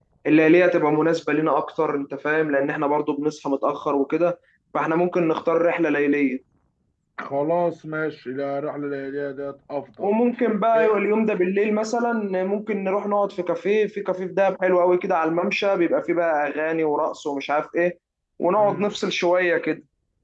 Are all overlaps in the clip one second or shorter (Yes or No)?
Yes